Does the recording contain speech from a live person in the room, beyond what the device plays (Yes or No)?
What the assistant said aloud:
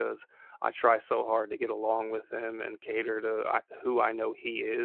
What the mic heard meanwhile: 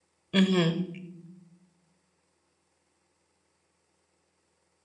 Yes